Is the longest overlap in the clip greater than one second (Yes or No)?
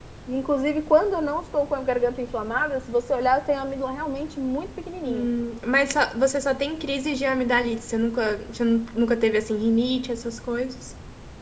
No